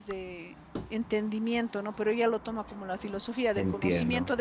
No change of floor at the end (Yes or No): Yes